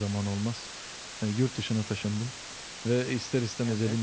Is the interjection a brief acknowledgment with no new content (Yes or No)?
Yes